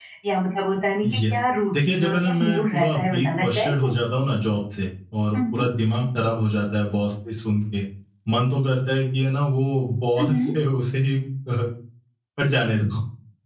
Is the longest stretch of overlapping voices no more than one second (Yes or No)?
No